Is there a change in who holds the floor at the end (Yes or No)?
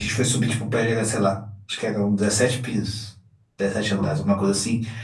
No